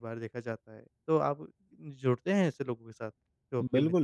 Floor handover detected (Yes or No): Yes